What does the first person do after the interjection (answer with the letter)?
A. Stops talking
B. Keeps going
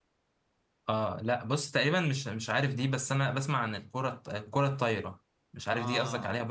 A